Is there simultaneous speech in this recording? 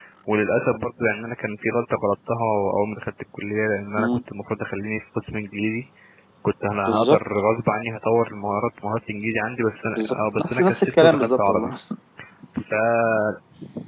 Yes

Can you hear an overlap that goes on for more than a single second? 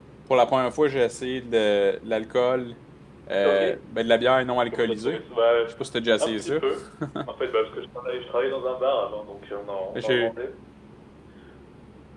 No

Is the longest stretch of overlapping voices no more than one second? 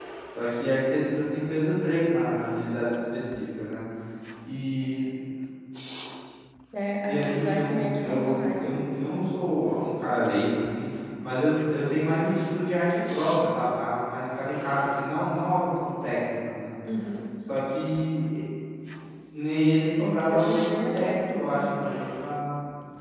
No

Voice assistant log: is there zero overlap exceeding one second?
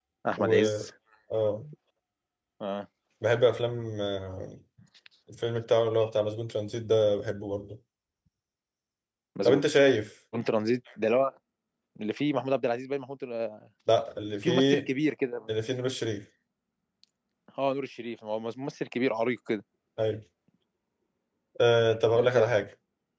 Yes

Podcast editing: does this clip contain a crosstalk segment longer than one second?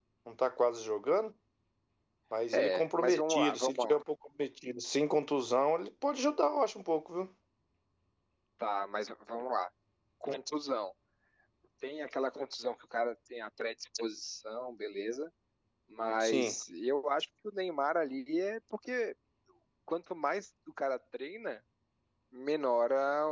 Yes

